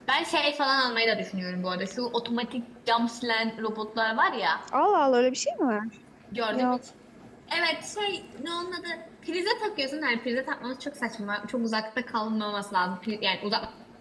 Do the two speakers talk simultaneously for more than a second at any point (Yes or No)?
No